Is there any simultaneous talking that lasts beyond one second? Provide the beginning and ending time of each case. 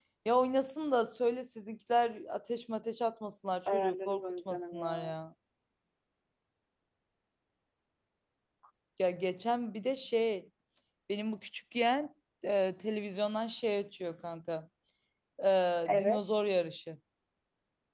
3.7-5.1

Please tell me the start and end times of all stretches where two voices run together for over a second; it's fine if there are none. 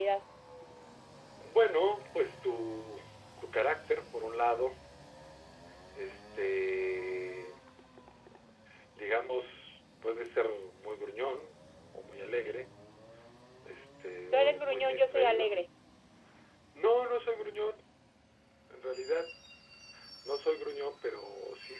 14.3-15.6

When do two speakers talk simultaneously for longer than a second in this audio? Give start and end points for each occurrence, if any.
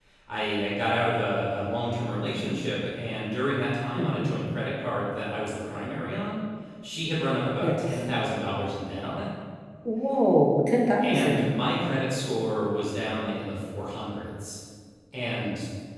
none

